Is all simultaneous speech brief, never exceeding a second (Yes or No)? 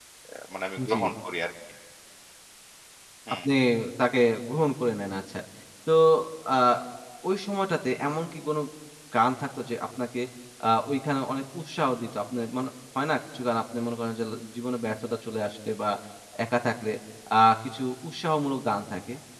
Yes